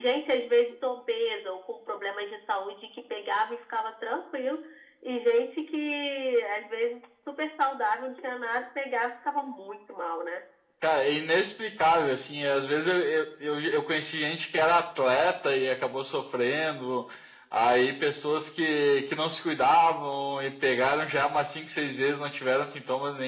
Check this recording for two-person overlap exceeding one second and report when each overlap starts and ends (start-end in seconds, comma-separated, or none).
none